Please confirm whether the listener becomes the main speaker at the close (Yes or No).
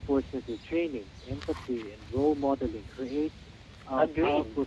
Yes